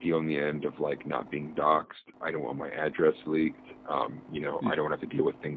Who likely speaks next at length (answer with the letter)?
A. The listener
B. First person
B